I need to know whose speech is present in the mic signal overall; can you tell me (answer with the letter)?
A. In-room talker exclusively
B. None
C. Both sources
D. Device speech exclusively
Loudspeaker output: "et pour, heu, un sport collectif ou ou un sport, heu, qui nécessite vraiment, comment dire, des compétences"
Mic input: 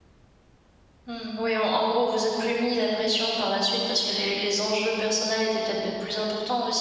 A